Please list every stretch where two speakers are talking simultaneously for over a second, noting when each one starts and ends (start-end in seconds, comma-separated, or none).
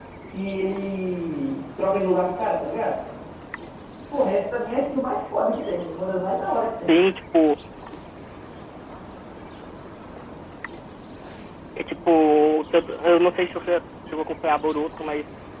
none